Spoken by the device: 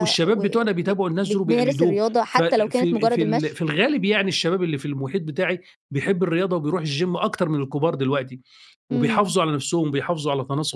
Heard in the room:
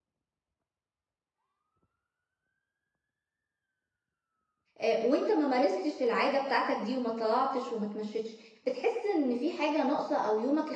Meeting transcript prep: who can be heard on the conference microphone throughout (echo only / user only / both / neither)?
user only